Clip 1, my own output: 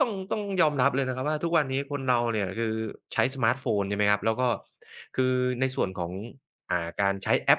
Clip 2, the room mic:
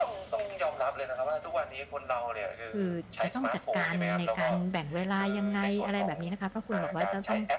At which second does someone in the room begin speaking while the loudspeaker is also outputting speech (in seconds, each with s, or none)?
2.7 s